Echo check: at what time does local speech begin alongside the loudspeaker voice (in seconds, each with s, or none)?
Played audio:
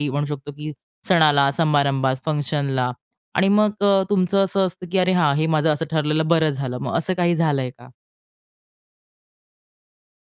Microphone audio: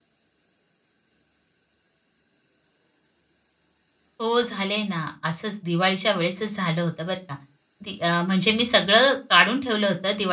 4.2 s